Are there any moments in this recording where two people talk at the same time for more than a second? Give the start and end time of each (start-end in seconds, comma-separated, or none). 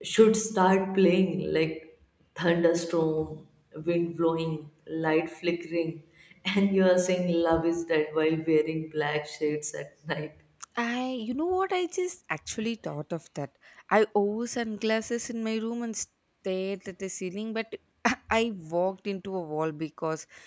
none